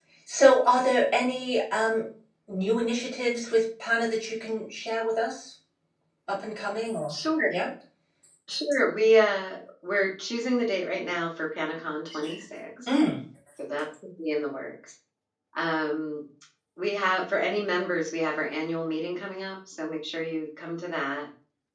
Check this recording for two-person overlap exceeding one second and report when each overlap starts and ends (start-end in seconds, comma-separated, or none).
none